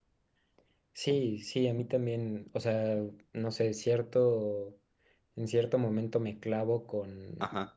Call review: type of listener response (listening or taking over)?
listening